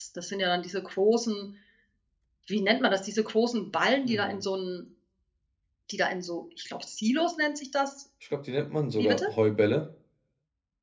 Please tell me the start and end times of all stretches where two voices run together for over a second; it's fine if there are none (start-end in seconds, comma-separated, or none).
none